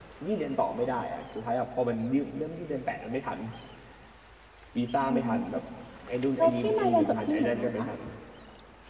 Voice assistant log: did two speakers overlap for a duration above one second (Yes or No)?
Yes